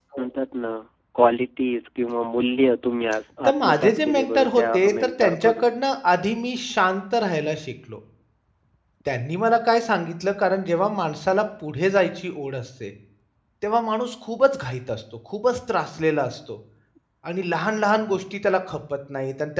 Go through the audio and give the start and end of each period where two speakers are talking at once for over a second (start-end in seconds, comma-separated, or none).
3.4-5.7